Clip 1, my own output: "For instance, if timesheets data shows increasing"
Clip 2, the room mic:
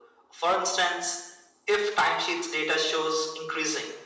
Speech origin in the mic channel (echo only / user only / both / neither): echo only